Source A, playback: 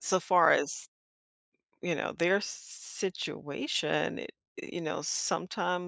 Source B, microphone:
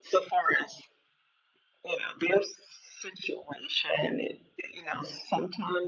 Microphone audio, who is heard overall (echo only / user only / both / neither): echo only